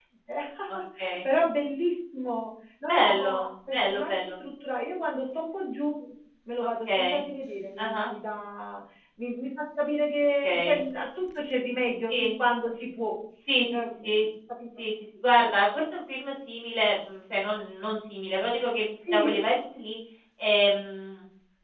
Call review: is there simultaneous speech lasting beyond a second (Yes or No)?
Yes